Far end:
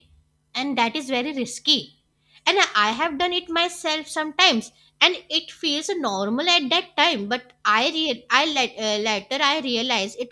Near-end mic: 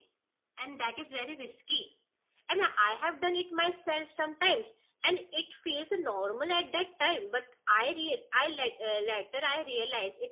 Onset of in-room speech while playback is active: none

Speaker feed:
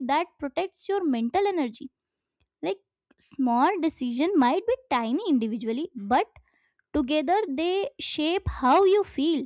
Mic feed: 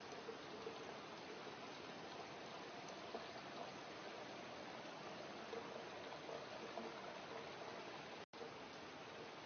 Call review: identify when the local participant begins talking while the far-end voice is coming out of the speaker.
none

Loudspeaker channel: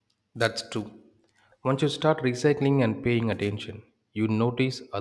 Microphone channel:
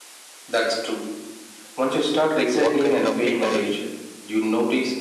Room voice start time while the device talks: 2.3 s

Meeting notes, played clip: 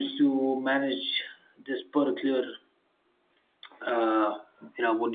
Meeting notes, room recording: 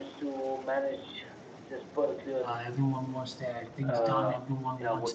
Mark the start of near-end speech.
2.4 s

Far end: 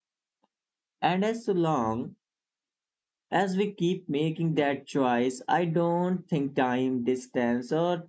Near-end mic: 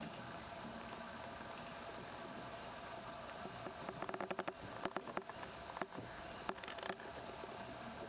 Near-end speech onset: none

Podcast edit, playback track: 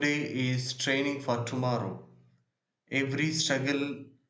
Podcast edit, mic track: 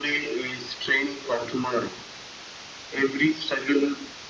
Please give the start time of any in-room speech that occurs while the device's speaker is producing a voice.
none

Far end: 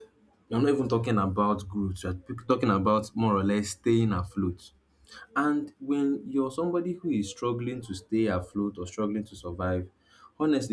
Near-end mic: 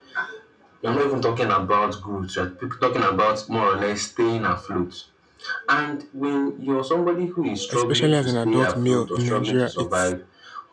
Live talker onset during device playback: 7.7 s

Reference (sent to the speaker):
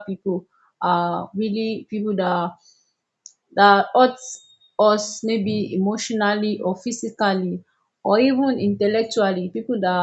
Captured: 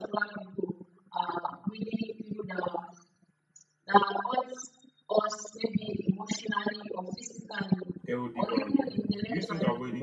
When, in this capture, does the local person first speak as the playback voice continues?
8.1 s

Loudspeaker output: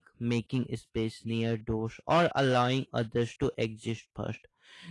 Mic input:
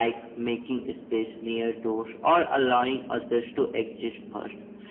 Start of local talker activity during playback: none

